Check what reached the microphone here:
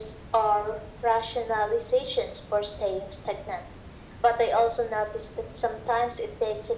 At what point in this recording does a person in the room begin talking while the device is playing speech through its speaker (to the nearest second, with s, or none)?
none